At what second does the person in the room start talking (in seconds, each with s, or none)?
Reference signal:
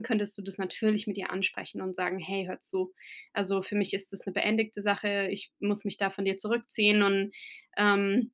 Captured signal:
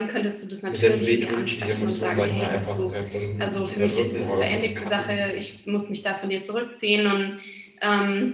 0.7 s